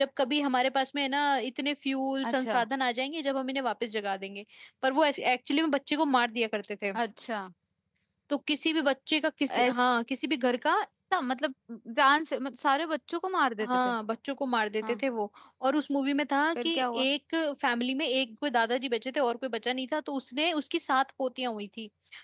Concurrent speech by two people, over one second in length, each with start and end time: none

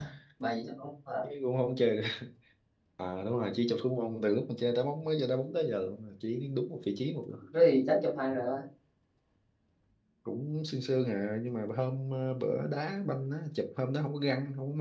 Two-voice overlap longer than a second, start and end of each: none

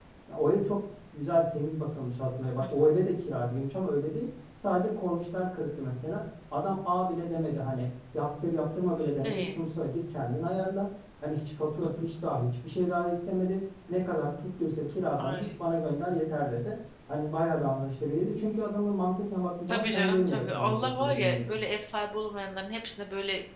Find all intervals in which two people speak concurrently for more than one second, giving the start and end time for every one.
19.7-21.5

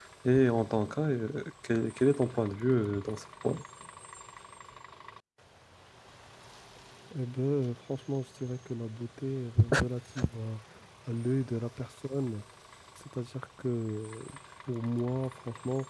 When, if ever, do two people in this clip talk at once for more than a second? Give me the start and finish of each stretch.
none

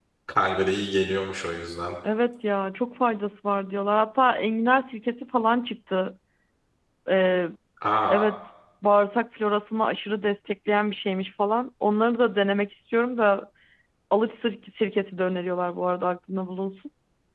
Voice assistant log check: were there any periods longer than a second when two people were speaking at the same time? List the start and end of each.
none

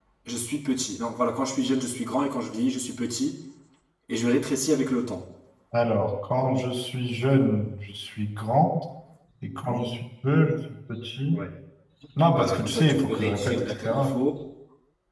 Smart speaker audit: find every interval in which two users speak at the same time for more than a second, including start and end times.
12.3-14.1

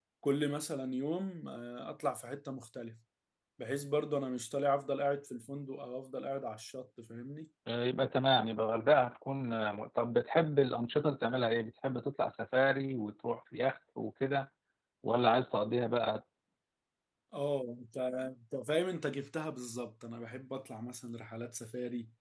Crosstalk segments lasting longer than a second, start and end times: none

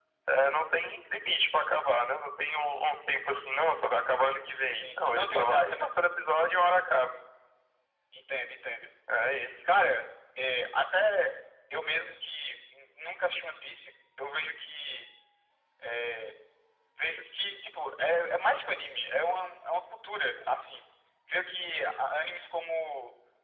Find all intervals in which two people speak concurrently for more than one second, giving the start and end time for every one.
4.7-5.9

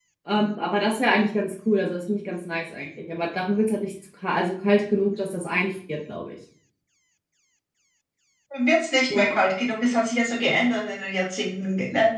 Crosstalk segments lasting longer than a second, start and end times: none

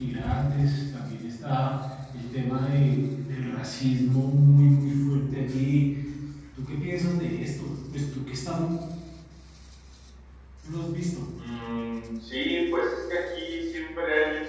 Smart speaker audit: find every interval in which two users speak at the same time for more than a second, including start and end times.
none

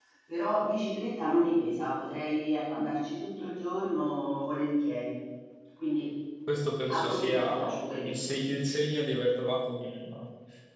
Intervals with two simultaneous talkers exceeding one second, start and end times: 6.9-8.1

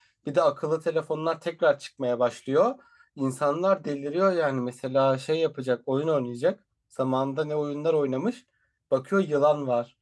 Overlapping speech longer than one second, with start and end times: none

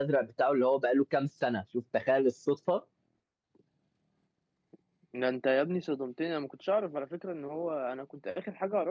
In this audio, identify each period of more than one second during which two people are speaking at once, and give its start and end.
none

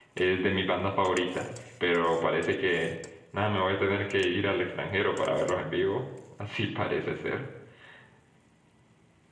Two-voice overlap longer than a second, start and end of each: none

